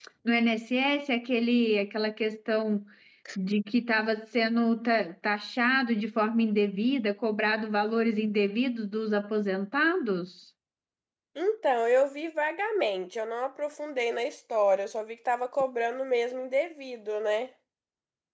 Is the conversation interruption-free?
Yes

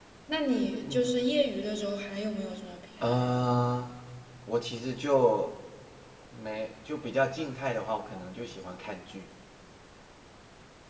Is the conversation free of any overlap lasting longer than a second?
Yes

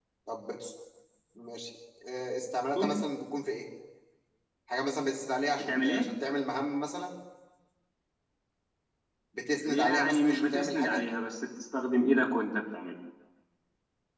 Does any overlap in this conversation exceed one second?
Yes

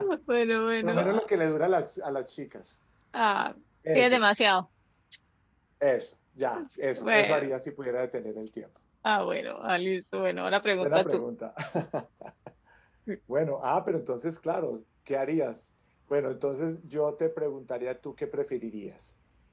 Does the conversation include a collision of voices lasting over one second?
No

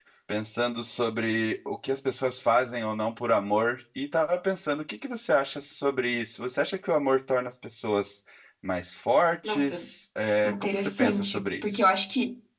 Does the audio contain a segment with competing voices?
Yes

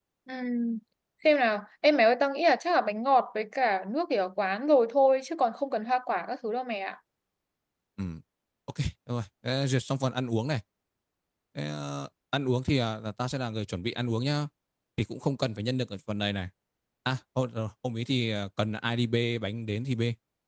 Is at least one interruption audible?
No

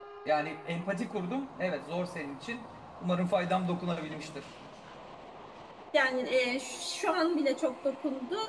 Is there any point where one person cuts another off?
No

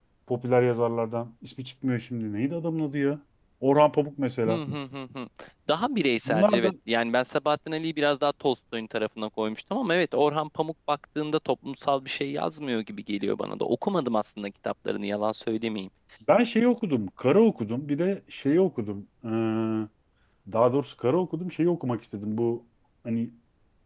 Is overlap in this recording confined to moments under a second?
Yes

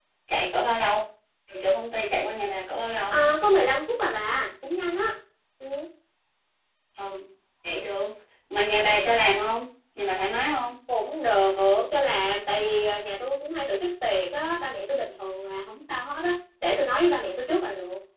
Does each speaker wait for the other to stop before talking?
Yes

